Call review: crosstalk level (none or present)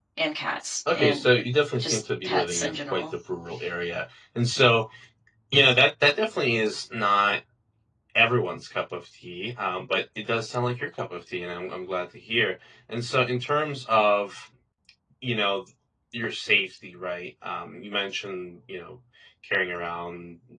present